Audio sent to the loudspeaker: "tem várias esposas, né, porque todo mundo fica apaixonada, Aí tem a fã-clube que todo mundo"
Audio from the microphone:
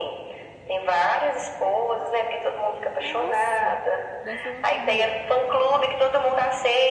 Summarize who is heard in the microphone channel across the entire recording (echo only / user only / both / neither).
both